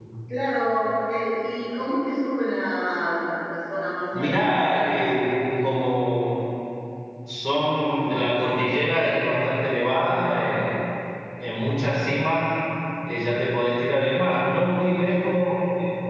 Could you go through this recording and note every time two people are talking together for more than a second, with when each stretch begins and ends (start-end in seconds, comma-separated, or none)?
none